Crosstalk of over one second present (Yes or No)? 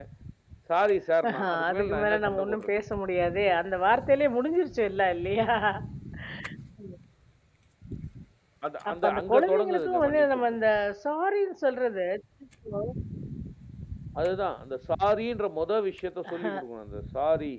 Yes